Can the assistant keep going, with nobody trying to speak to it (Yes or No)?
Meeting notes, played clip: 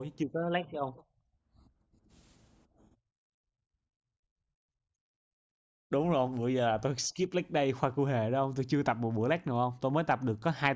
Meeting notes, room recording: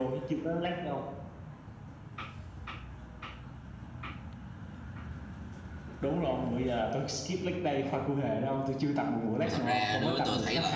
No